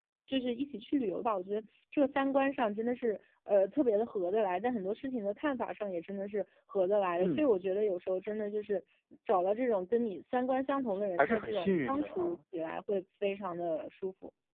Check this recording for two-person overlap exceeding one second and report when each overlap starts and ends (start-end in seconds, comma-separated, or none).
11.2-12.4